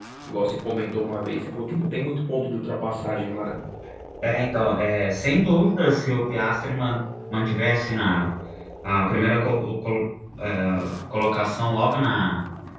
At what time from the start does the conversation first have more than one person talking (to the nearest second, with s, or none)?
none